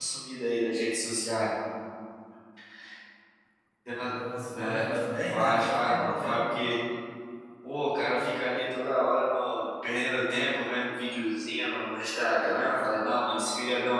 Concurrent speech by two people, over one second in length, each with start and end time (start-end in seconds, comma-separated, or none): 5.3-6.7